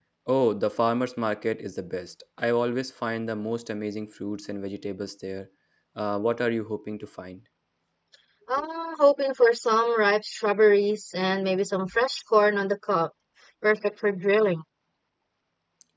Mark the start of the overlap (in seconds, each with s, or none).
none